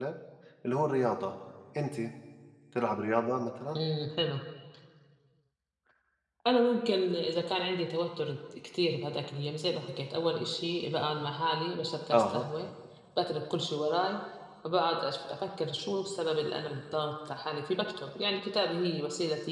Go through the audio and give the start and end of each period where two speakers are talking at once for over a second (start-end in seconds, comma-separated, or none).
none